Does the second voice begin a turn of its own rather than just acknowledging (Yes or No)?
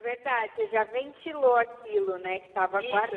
Yes